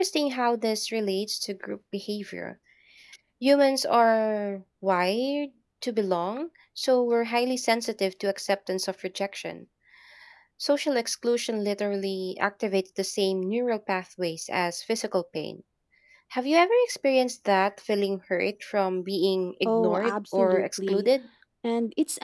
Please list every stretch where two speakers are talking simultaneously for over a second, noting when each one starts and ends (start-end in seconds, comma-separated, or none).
19.6-21.1